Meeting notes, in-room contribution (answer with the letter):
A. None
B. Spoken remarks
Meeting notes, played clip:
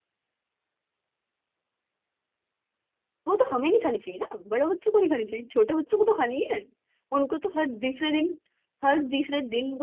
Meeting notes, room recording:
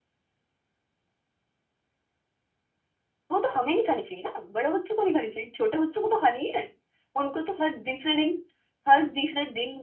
A